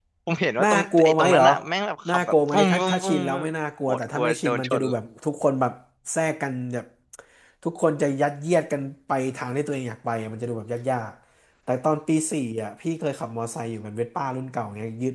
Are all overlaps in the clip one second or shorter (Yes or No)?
No